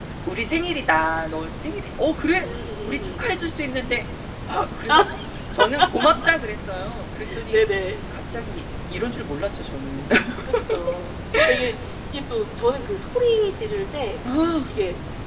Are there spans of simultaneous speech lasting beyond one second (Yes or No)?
No